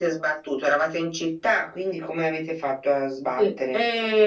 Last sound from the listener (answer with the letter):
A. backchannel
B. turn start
B